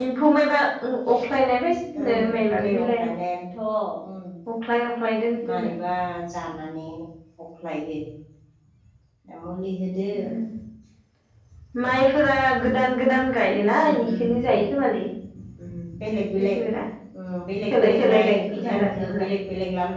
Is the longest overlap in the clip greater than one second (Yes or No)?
Yes